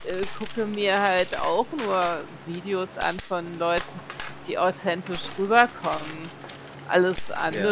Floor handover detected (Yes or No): No